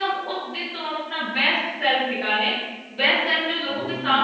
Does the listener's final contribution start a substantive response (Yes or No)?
Yes